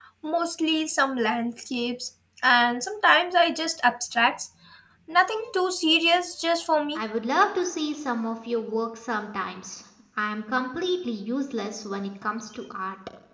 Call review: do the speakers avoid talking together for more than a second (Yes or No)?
Yes